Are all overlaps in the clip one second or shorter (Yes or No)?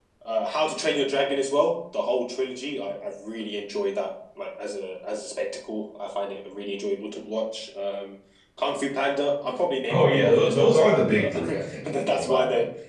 No